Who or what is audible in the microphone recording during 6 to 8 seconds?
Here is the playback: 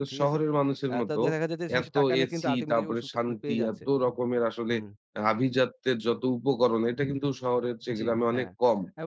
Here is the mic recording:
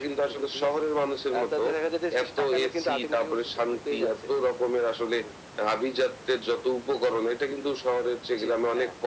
echo only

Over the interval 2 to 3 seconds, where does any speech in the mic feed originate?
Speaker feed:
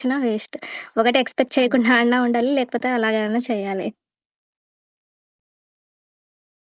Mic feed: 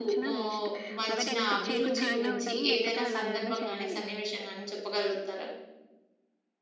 both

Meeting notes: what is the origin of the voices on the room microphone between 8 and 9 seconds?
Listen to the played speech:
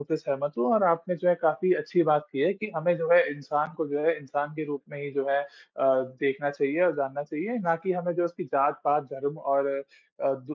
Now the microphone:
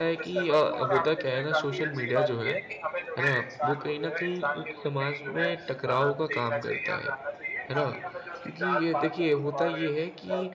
both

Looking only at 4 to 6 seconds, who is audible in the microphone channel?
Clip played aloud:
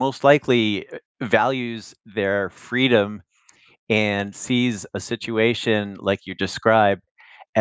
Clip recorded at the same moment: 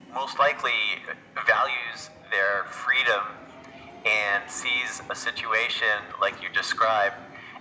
echo only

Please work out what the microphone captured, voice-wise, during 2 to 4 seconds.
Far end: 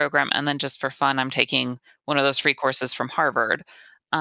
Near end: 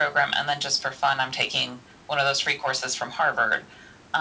echo only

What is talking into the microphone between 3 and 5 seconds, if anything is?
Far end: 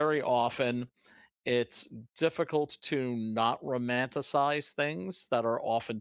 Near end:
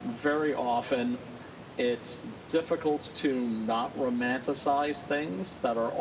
echo only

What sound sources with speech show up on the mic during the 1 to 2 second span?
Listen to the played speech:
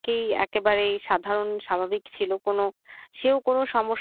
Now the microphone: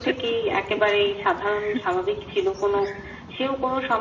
echo only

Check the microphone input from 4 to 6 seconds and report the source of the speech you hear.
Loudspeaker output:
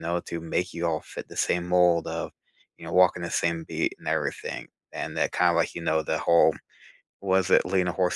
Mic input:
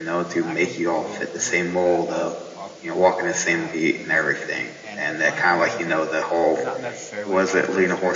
both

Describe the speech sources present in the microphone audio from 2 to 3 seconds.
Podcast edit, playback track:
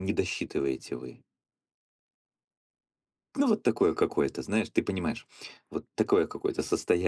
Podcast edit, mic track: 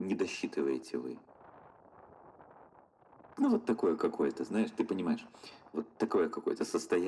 neither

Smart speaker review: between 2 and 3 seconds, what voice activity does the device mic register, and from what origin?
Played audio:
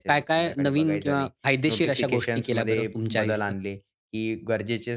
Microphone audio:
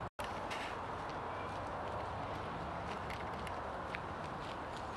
neither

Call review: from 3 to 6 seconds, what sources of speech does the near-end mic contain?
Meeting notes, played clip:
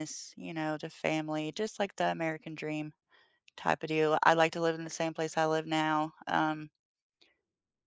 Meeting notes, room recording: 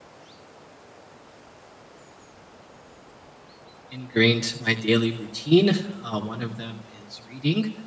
user only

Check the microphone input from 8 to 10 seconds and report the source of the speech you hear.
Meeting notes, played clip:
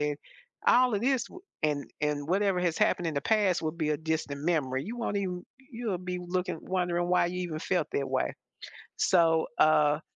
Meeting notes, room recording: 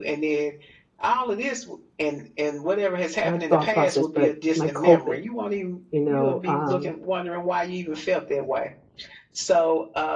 echo only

